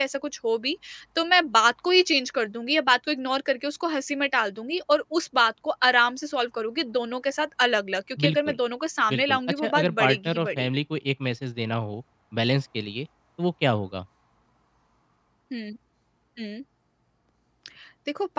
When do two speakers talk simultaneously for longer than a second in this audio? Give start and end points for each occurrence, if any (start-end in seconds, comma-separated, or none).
9.1-10.7